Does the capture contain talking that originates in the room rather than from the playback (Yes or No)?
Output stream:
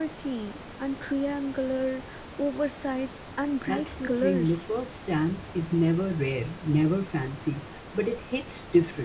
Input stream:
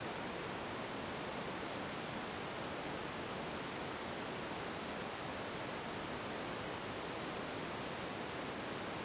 No